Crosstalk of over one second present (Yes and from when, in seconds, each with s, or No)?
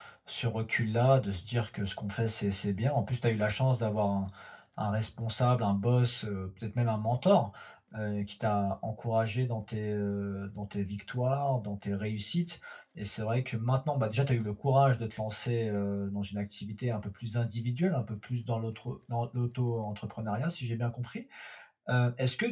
No